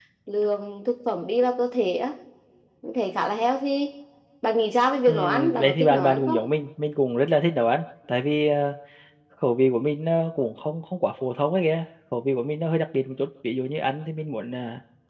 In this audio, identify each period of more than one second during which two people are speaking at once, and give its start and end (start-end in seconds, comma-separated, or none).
5.1-6.5